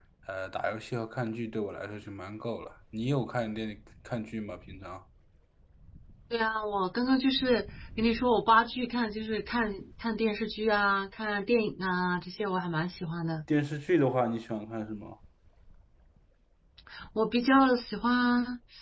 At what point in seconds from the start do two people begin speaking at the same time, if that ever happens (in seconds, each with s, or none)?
none